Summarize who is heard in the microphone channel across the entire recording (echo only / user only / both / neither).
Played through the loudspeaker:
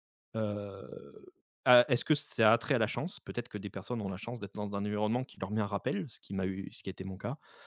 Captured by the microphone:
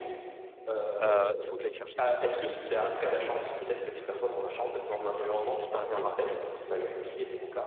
both